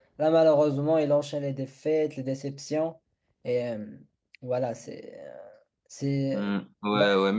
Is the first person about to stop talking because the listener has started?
Yes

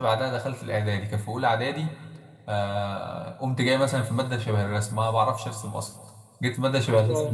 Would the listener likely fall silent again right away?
Yes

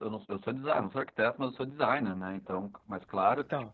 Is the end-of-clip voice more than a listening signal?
No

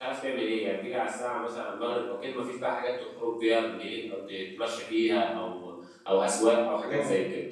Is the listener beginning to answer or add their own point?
Yes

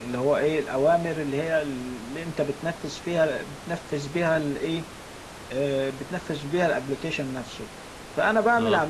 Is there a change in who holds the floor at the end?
No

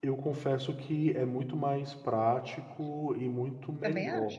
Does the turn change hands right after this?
No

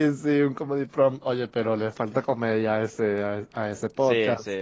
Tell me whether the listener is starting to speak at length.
Yes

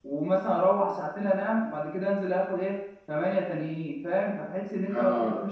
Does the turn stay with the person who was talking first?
Yes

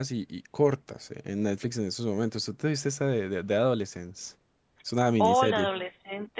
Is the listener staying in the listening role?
No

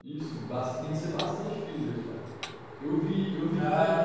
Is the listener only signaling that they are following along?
Yes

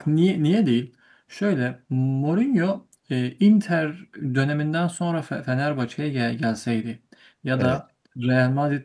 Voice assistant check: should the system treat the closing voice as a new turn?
No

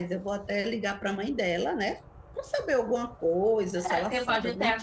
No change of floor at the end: No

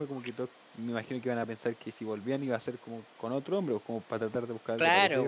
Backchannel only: No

